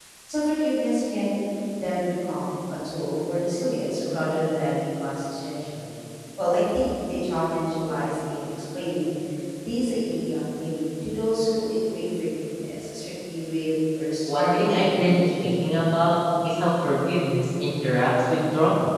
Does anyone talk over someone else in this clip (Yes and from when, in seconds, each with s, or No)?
Yes, from 14.2 s